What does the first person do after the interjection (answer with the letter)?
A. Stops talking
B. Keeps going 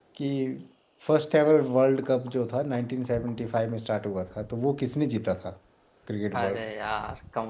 A